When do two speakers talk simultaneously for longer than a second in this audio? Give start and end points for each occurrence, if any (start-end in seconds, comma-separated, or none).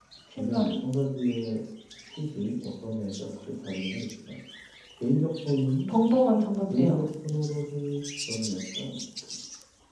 none